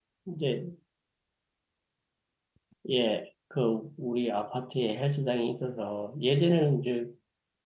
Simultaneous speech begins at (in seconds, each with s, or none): none